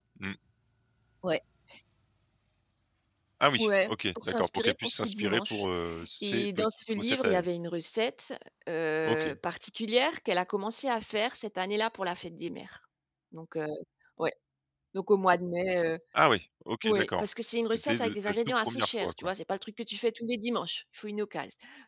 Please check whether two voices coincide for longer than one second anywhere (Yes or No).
Yes